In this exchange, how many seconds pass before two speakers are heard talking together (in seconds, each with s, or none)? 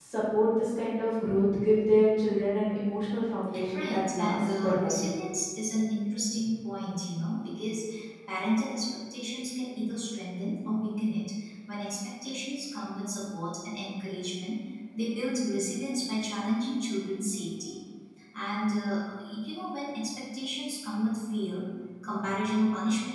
3.5 s